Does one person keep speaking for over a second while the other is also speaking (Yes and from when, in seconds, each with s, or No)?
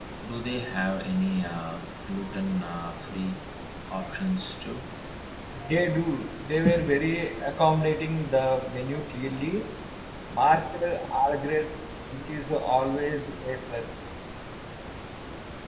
No